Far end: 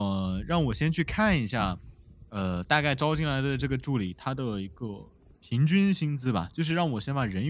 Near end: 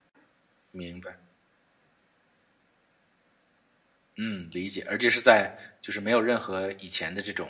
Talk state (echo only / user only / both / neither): user only